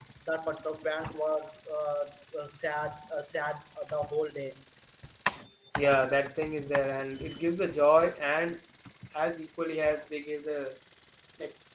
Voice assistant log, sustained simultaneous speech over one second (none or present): none